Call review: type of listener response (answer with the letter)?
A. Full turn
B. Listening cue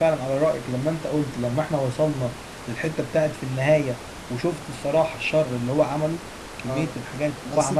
A